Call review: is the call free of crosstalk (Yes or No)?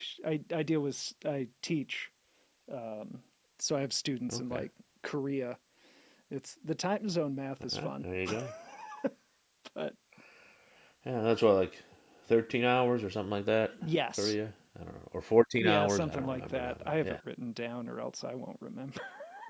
No